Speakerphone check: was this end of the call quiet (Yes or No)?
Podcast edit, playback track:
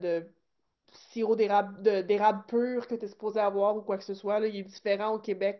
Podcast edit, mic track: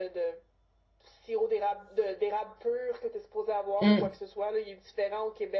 No